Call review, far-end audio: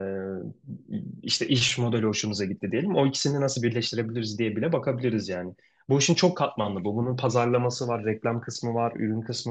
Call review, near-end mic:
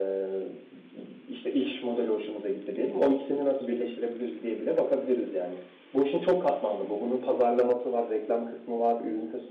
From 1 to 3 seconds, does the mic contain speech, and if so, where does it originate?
echo only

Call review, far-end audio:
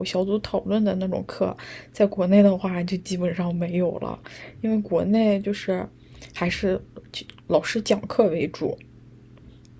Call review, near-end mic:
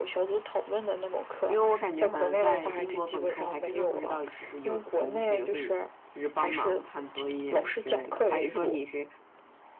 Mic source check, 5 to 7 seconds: both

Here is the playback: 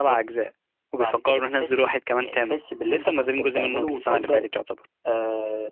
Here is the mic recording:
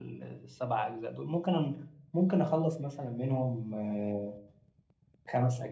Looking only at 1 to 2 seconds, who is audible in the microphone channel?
user only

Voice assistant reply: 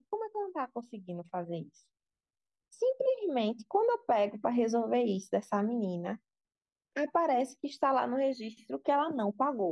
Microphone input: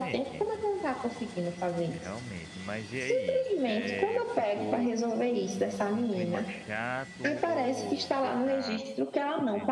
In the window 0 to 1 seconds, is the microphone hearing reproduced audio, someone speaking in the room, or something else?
both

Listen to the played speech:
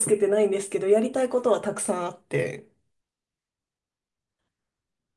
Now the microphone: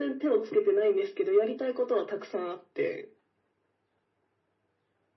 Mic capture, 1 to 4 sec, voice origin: echo only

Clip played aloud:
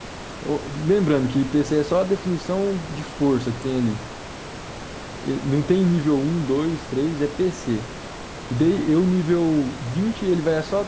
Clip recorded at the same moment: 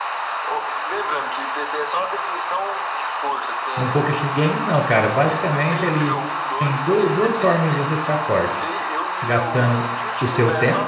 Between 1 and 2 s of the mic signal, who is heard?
echo only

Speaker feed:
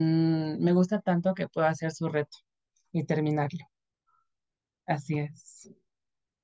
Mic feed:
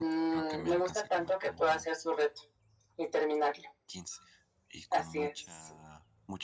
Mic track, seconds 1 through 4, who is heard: both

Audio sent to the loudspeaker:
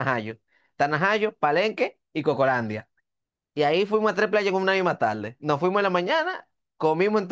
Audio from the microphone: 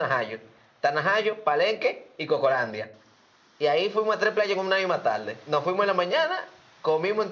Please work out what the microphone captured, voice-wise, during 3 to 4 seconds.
echo only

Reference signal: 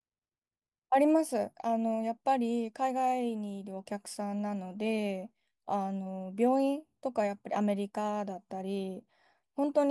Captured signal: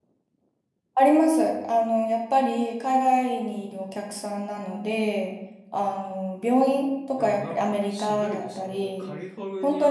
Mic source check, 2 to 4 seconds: echo only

